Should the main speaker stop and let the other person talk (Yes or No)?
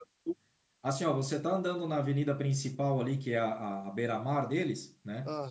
No